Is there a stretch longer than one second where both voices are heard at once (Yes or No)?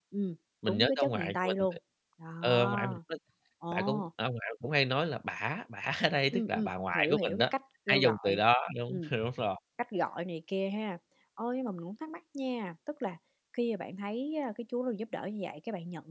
Yes